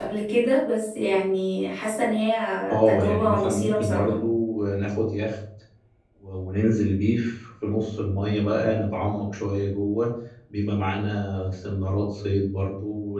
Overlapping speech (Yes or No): Yes